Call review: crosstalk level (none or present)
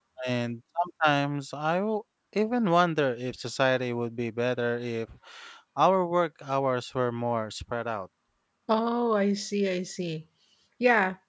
none